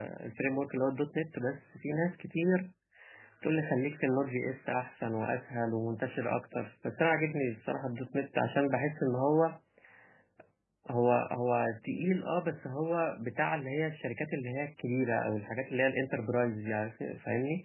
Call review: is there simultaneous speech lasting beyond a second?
No

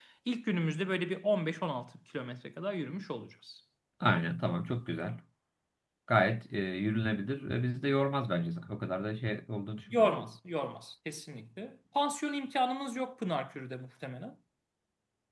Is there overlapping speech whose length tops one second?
No

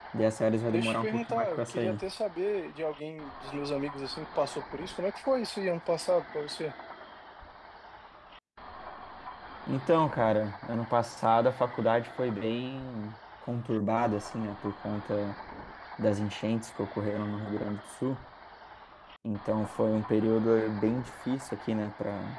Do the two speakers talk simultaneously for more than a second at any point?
Yes, from 0.7 s

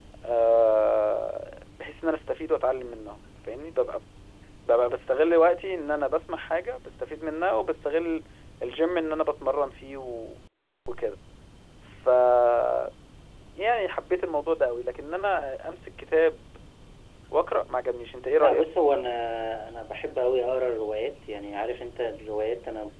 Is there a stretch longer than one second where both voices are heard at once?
No

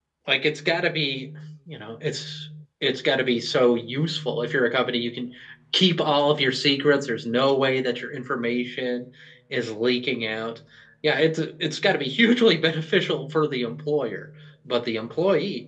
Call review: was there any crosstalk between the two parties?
No

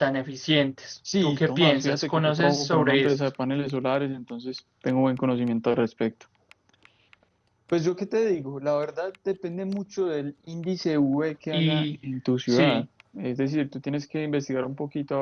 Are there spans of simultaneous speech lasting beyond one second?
Yes, from 1.2 s

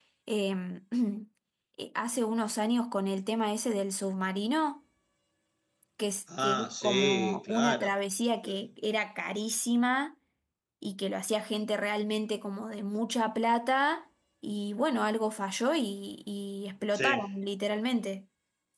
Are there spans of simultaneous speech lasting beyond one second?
Yes, from 6.4 s

